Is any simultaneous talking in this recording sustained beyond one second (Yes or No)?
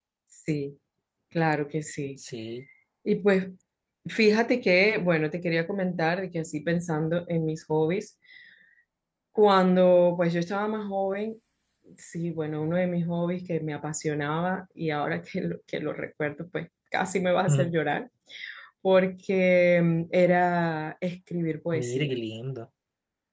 No